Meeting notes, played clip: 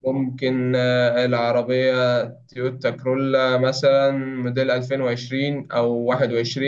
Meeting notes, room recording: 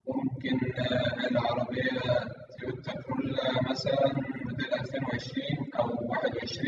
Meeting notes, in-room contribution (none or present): none